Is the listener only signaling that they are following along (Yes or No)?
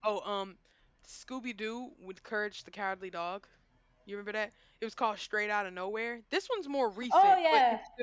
No